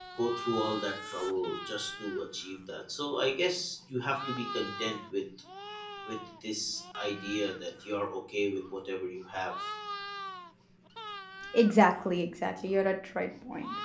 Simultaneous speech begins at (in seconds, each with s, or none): none